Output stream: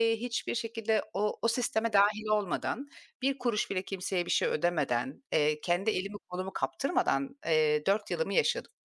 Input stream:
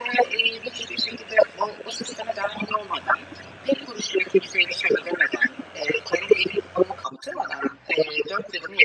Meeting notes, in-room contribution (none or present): none